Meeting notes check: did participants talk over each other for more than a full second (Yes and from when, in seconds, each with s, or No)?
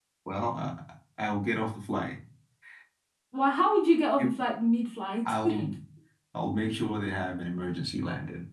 No